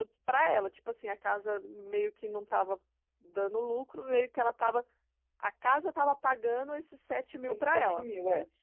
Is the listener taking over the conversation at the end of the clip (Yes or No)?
Yes